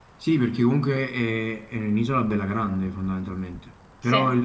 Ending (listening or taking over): listening